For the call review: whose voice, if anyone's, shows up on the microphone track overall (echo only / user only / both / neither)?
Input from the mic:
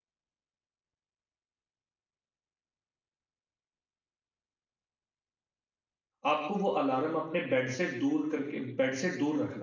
user only